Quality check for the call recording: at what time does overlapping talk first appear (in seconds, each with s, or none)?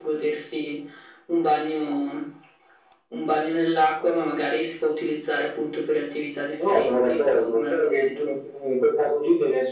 6.6 s